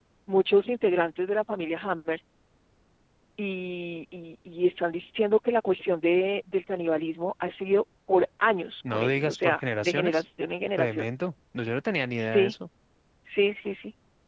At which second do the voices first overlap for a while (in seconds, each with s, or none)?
8.9 s